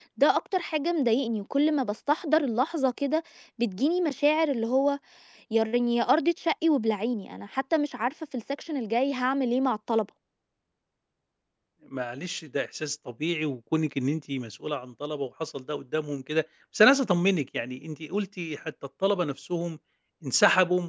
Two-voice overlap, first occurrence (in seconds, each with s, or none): none